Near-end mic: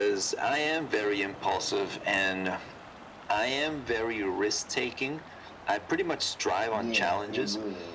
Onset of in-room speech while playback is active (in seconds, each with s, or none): 6.8 s